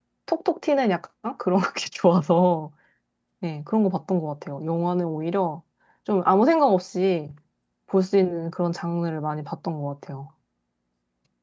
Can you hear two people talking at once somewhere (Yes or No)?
No